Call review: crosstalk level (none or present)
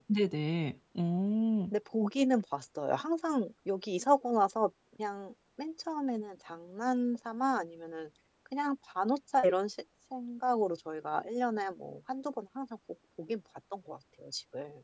none